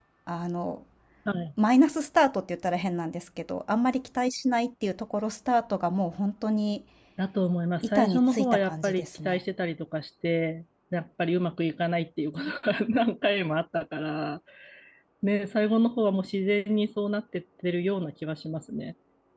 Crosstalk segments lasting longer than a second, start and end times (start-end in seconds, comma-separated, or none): 7.8-9.4